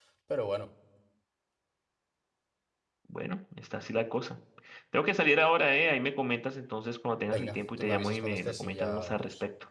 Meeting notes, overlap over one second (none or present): present